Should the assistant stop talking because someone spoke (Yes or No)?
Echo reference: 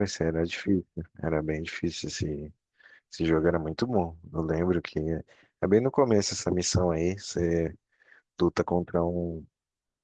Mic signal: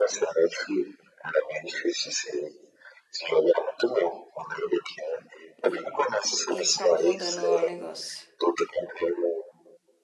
Yes